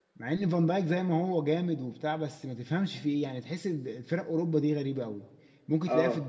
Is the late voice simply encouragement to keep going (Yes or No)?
Yes